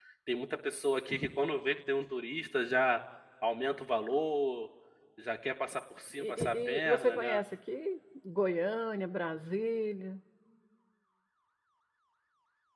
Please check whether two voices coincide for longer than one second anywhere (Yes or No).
Yes